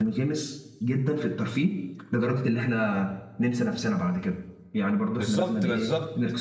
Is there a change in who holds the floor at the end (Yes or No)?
Yes